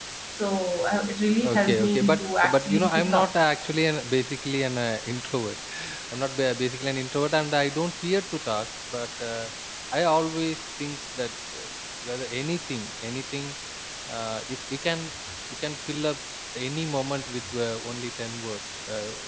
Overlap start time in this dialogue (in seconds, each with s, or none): 1.4 s